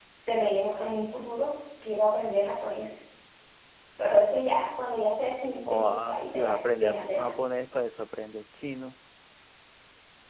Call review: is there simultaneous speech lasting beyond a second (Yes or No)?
Yes